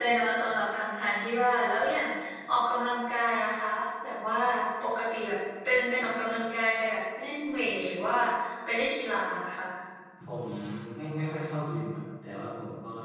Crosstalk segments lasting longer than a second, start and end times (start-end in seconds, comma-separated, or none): none